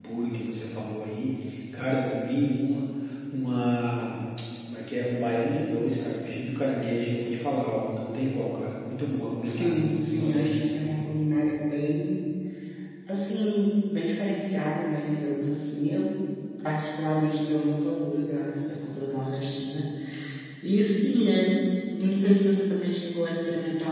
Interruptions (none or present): present